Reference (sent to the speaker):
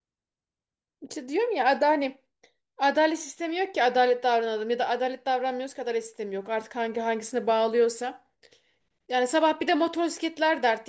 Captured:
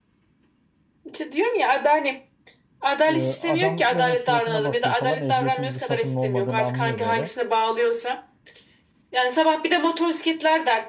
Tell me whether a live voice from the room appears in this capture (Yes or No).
Yes